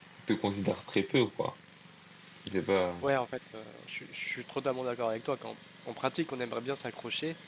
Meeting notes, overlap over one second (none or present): none